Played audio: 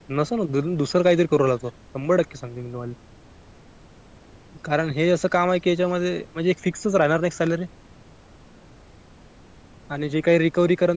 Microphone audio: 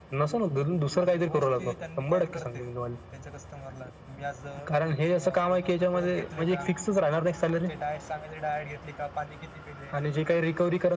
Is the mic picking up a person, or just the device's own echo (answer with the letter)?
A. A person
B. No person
A